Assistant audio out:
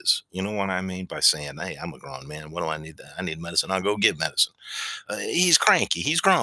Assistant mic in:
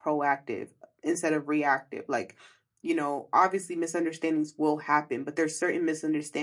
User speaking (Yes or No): Yes